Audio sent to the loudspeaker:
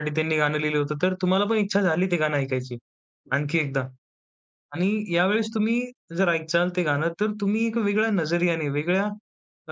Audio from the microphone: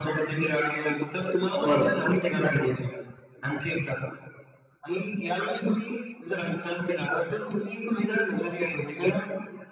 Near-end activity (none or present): present